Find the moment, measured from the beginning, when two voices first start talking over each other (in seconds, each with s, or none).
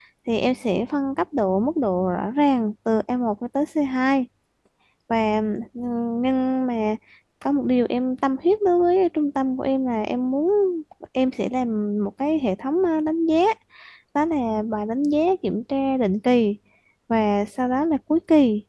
none